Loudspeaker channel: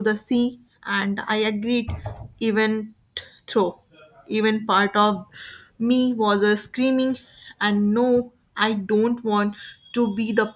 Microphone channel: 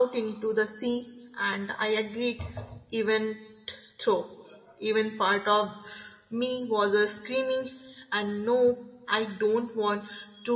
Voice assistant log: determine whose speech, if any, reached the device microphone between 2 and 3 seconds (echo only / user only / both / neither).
echo only